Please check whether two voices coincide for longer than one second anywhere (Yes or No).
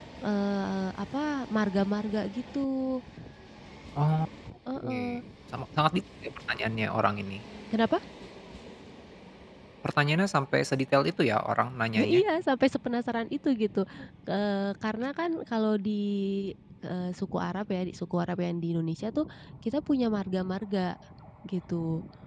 No